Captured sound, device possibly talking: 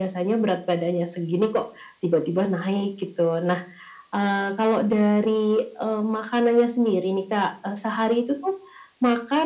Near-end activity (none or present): none